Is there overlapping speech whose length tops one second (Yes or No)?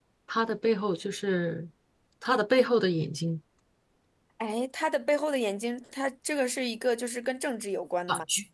No